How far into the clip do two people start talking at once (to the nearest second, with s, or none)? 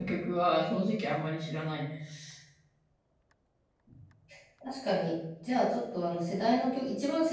none